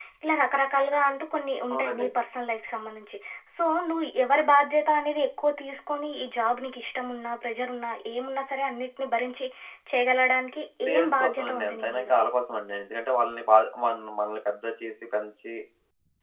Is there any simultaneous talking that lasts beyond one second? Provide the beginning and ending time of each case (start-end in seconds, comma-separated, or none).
10.9-12.1